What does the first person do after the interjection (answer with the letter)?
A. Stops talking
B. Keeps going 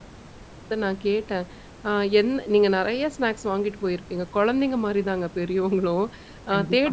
B